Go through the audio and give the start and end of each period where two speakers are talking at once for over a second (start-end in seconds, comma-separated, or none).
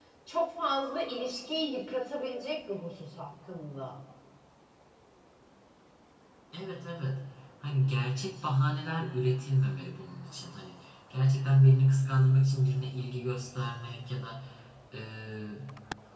none